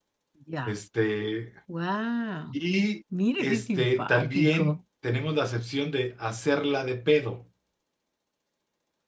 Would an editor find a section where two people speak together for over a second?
Yes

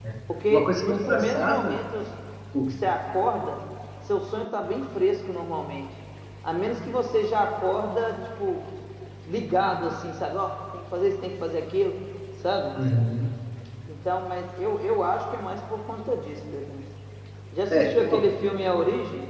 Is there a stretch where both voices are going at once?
Yes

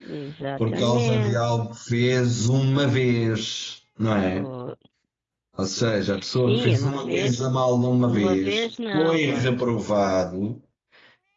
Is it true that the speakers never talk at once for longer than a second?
No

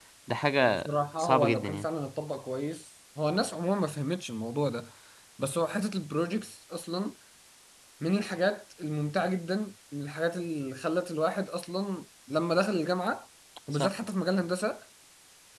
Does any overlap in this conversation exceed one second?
Yes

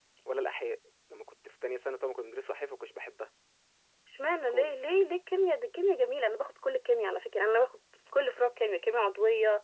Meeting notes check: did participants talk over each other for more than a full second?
No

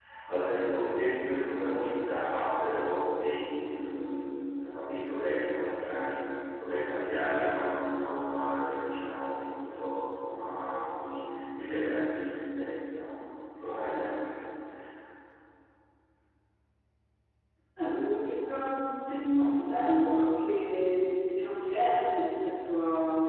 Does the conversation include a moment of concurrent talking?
No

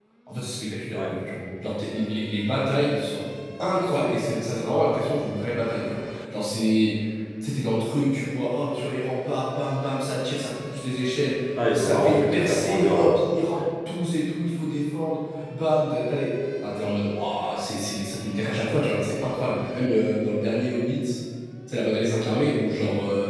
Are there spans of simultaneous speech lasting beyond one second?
Yes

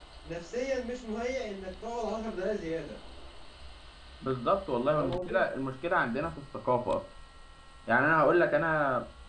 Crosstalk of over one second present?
No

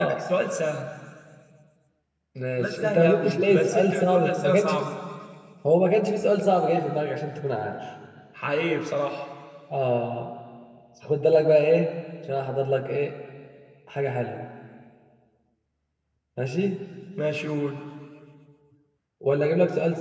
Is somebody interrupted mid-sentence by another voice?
Yes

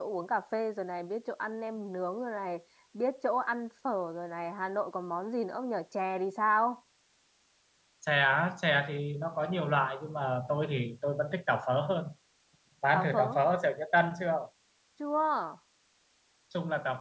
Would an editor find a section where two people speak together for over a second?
No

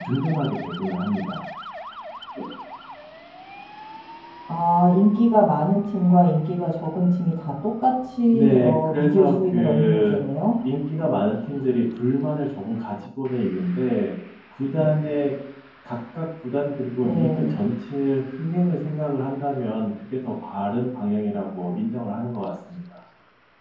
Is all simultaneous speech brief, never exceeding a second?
No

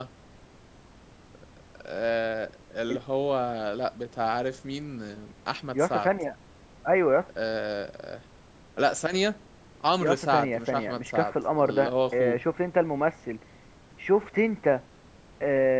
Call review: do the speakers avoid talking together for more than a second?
No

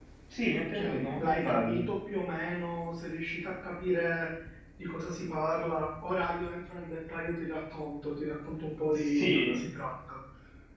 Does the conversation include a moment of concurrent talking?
Yes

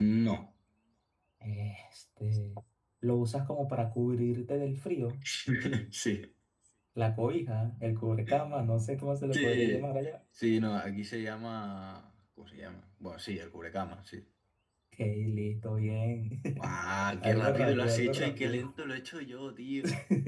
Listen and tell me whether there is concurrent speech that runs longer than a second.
Yes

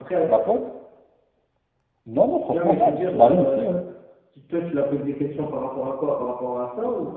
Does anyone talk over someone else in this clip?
Yes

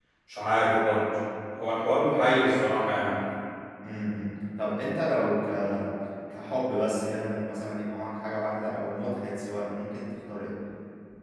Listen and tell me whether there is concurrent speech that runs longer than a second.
No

